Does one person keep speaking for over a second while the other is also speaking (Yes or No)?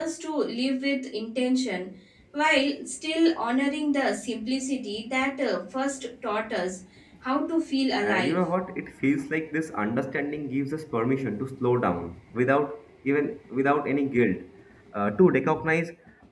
No